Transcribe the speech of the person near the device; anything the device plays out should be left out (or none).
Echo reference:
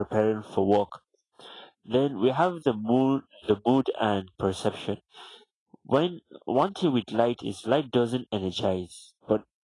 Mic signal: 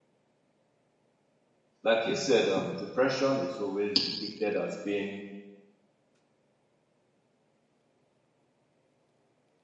Like you said, um, depression is always depicted as being